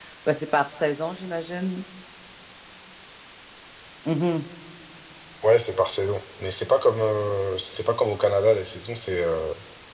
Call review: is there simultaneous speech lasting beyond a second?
No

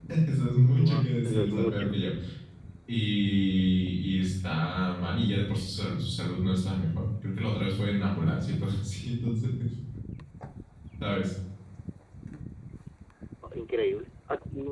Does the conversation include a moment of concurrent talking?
Yes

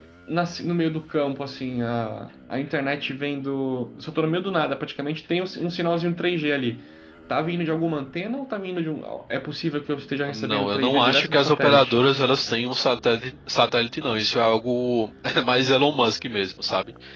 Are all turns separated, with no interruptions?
No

